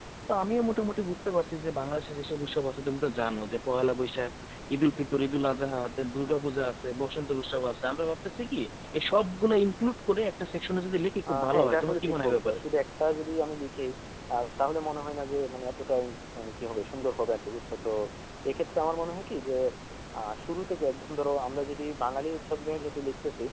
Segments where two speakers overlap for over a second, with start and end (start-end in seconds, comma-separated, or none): 11.3-12.6